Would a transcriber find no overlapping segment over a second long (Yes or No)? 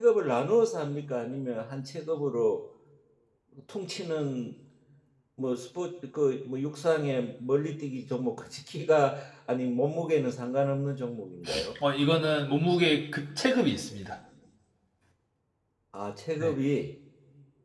Yes